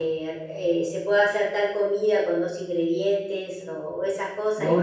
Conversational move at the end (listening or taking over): listening